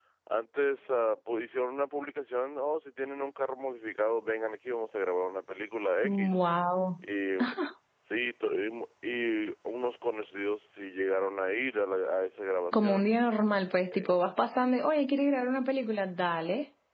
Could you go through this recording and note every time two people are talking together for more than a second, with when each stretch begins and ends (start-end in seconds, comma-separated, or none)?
none